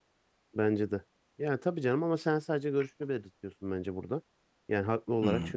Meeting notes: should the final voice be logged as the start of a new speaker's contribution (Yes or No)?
No